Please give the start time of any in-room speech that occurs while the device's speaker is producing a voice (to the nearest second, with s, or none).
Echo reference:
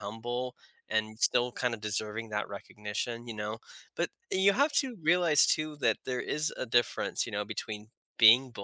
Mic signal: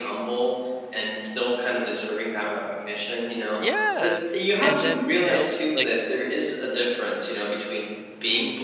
4 s